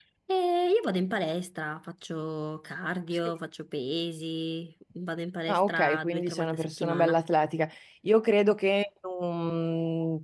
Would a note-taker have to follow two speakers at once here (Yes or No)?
Yes